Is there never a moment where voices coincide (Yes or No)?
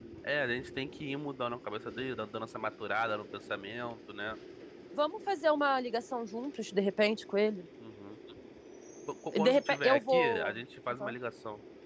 No